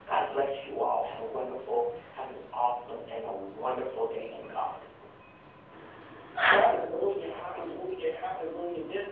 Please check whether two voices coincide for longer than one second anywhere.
No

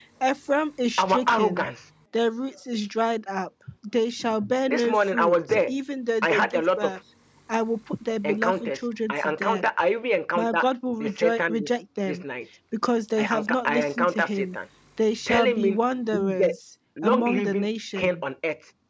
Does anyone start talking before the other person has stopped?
Yes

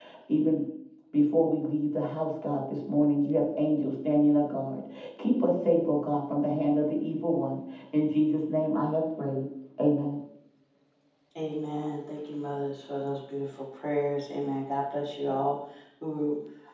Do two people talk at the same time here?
No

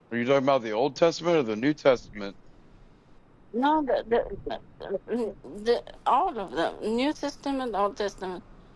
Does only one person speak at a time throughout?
Yes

